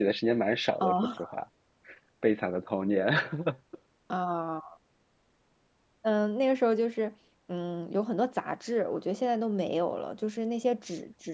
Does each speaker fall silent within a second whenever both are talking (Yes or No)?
Yes